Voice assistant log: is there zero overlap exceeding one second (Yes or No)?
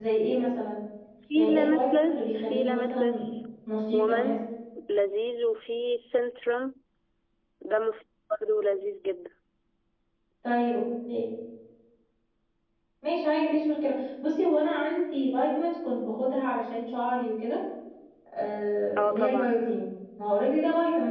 No